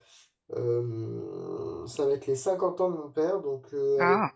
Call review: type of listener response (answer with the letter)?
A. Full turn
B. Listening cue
B